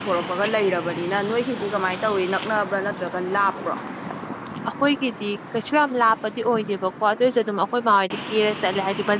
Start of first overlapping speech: none

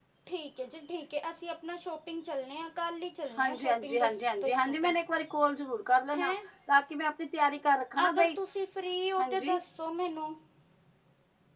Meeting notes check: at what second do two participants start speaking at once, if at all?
3.4 s

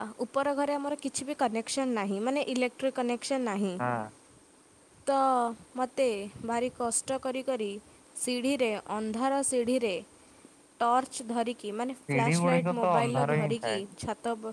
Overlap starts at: 12.1 s

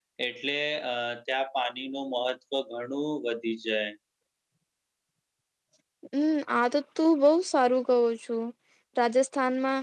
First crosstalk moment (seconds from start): none

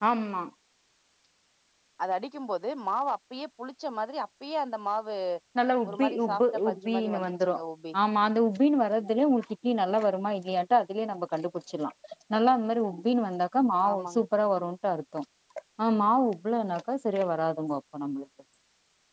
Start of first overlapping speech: 5.9 s

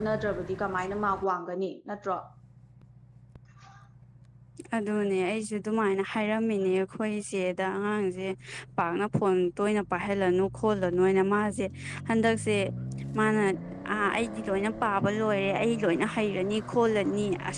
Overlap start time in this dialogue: none

